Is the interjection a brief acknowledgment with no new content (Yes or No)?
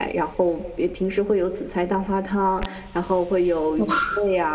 Yes